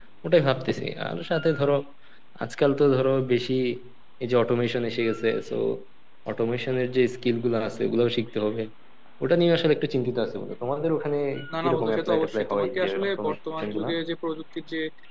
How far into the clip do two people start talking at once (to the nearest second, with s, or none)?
12 s